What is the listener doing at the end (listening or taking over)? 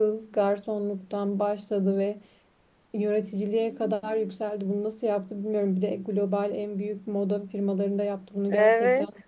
taking over